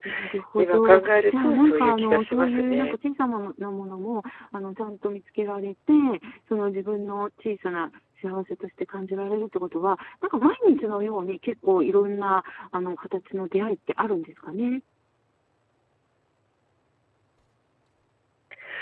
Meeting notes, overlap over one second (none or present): present